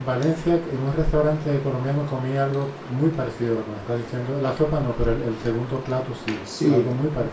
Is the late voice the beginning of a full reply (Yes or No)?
Yes